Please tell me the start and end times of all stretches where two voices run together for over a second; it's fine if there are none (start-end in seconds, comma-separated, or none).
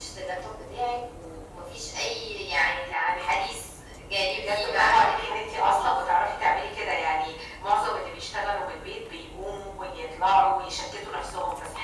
4.3-6.0